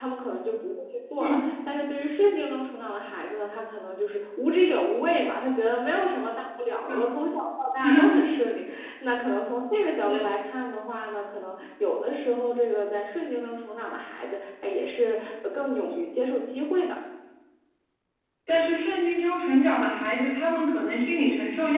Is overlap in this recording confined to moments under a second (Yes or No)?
Yes